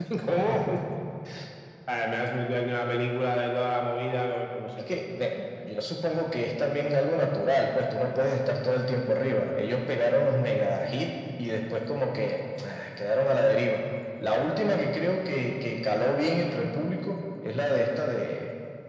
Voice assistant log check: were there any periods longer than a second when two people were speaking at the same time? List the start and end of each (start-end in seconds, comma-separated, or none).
none